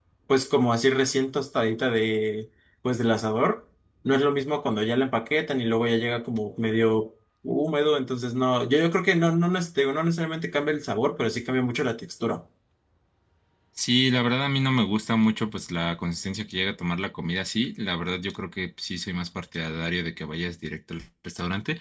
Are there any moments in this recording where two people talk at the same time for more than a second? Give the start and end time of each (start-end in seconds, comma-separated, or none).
none